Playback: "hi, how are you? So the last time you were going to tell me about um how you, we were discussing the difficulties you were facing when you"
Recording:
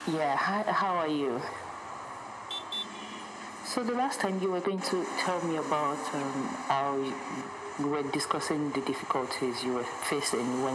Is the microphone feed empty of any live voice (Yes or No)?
Yes